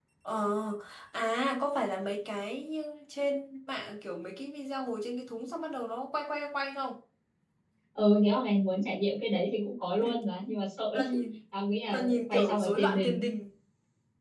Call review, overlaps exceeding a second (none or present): present